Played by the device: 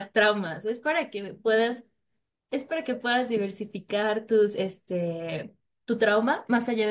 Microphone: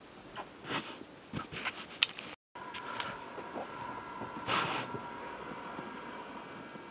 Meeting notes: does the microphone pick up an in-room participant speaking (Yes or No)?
No